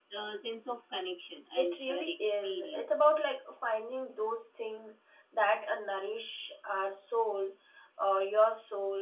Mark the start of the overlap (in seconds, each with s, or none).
1.6 s